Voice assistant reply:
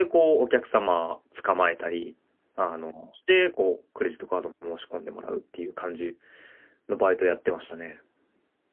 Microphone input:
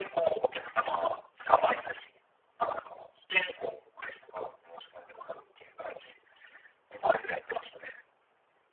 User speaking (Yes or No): No